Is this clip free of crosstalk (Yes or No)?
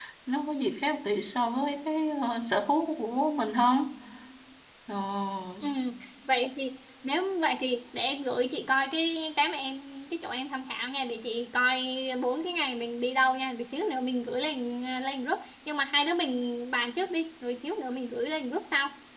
Yes